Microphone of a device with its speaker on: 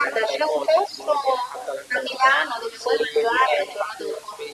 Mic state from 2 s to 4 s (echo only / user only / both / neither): echo only